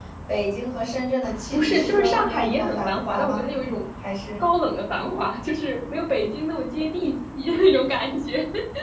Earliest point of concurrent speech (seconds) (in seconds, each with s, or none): 1.5 s